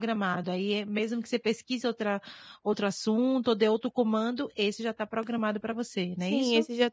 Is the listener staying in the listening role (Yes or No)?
No